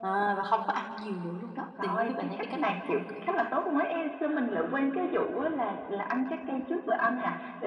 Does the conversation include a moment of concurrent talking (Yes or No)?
Yes